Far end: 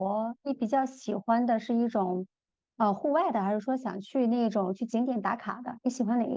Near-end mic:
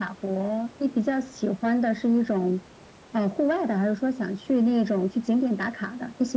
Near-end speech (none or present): none